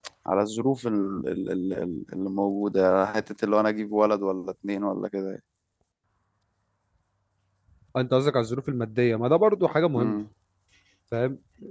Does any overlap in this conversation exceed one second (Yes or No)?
No